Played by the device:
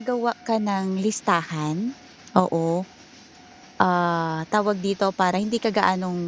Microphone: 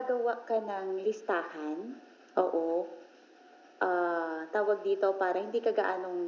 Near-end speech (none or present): none